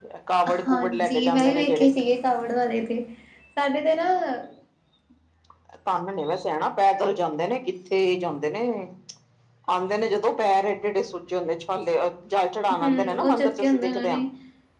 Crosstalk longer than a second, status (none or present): present